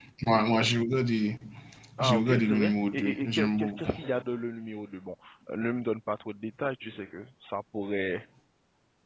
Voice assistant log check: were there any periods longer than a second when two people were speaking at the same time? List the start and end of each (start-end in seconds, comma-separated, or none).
2.0-3.9